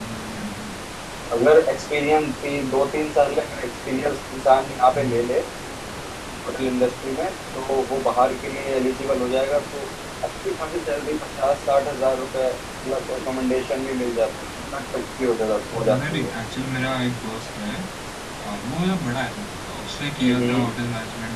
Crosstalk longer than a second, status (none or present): none